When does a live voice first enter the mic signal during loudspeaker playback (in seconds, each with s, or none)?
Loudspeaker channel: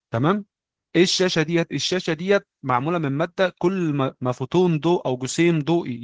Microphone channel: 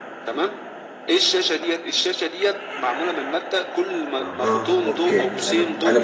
4.2 s